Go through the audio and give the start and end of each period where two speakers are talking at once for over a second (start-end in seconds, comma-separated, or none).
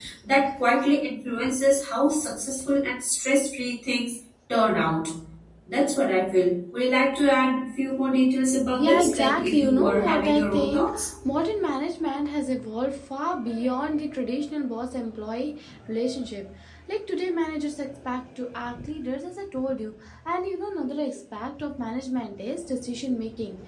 8.8-11.1